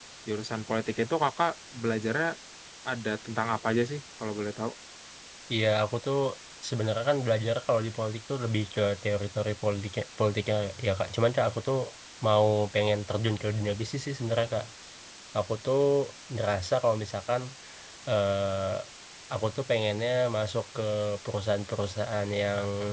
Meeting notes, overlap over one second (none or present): none